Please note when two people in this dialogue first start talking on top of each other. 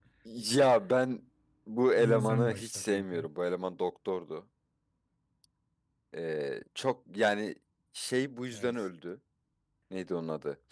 1.9 s

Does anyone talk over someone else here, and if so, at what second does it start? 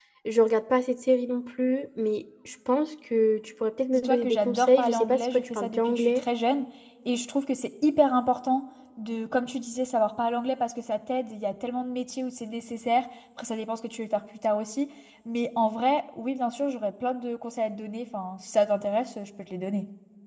3.9 s

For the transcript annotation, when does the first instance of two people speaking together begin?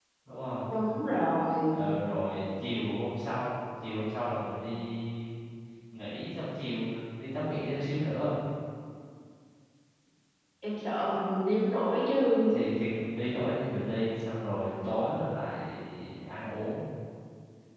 none

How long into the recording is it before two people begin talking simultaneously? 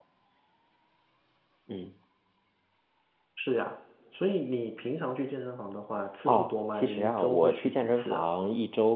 6.3 s

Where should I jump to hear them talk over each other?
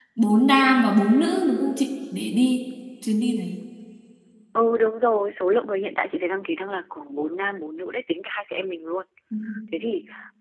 none

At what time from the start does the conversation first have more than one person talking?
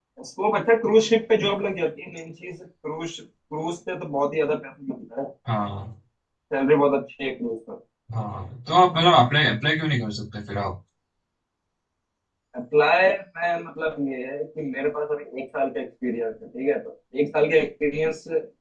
none

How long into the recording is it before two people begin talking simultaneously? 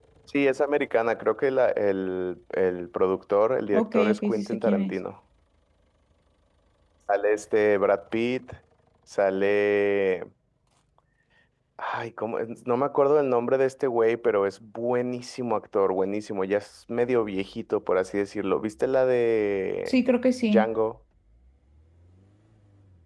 3.7 s

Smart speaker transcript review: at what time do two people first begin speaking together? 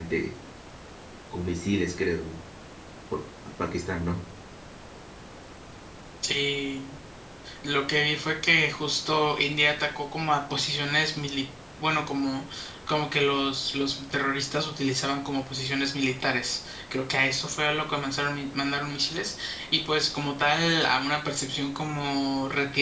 none

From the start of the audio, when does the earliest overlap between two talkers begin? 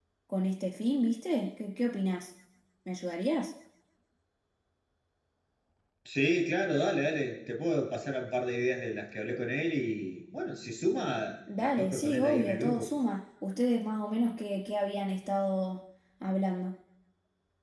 11.5 s

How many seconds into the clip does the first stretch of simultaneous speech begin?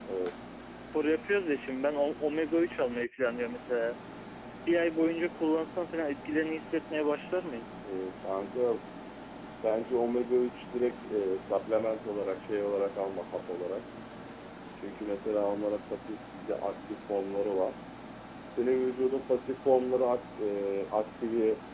none

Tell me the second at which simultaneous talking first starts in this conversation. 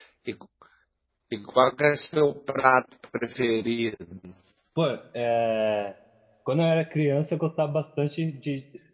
none

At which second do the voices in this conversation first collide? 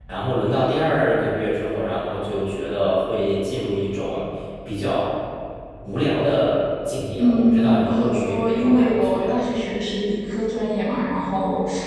7.2 s

